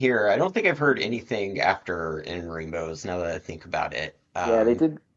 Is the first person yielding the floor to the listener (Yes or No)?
Yes